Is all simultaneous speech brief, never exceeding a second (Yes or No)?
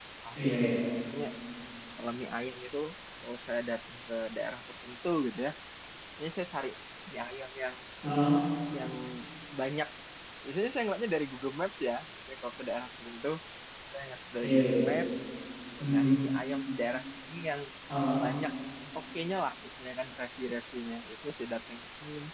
Yes